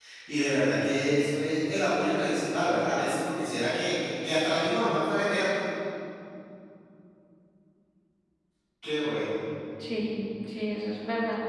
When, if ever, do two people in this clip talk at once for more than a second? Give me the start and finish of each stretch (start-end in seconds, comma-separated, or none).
none